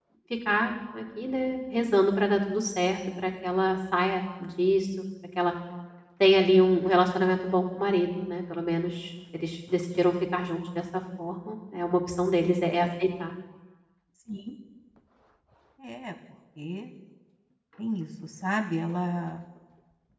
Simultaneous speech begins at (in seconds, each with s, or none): none